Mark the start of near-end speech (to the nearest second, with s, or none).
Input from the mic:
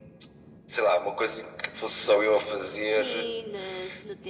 3 s